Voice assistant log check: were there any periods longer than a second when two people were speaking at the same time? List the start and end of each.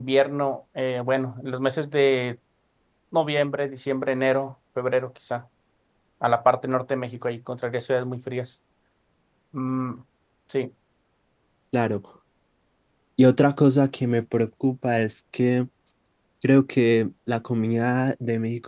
none

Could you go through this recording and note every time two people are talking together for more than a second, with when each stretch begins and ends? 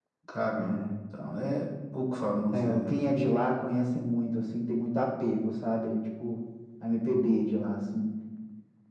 none

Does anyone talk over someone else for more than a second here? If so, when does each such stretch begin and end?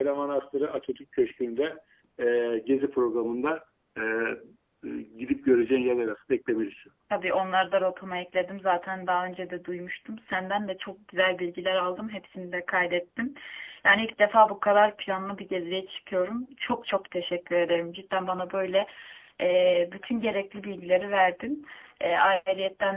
none

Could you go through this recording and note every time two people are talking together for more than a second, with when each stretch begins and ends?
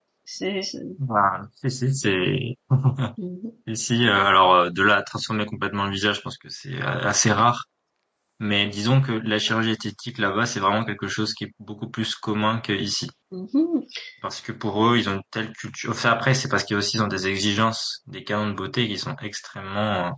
none

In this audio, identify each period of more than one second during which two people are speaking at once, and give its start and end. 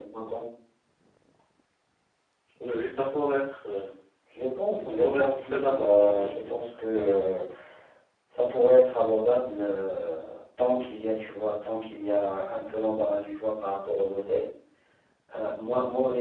4.8-6.5

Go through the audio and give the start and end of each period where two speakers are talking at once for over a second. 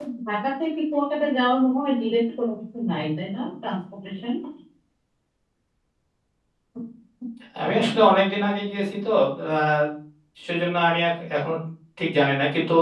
none

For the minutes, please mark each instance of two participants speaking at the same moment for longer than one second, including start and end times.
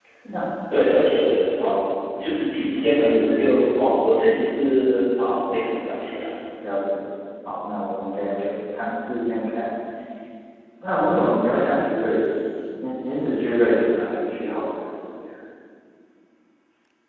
none

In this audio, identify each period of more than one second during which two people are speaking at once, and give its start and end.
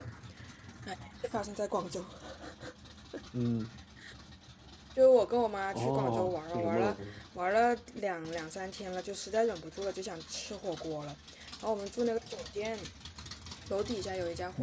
5.7-7.0

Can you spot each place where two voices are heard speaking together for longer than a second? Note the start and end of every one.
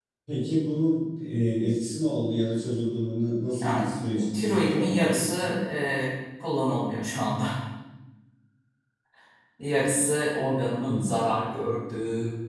4.3-5.6

